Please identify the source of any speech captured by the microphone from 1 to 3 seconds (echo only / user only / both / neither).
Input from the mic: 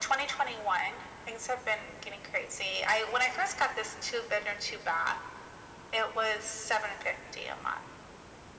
echo only